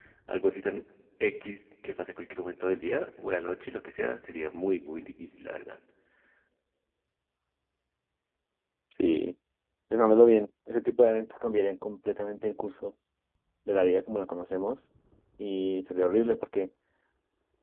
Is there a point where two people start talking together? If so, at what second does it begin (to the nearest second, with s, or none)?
none